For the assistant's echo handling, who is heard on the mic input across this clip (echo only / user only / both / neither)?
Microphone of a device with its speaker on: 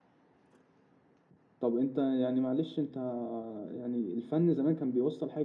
user only